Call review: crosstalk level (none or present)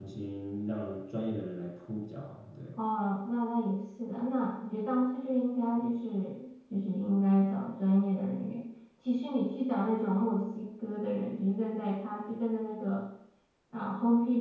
none